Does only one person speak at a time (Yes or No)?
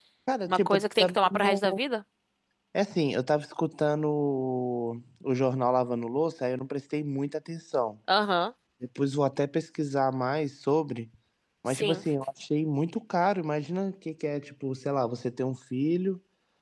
No